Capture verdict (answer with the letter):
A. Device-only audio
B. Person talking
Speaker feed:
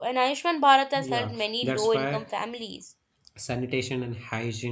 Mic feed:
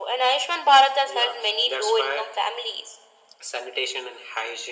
A